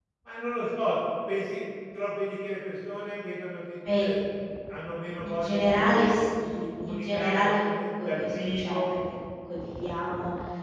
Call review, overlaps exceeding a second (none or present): present